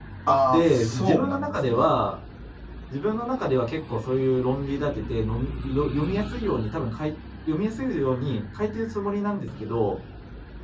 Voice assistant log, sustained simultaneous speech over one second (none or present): present